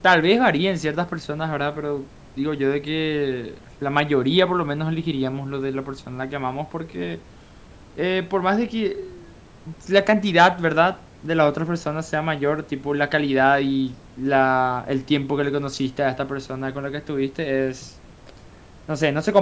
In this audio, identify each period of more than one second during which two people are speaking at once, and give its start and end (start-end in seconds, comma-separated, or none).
none